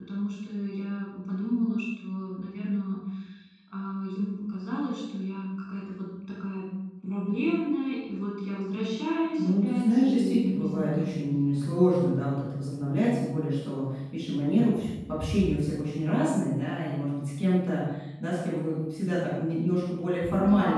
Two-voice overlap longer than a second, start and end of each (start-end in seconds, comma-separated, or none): 9.4-11.1